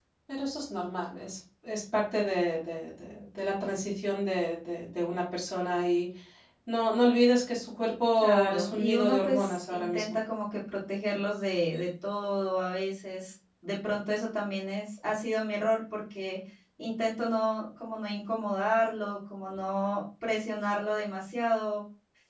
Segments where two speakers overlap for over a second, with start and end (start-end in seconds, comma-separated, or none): 8.2-10.2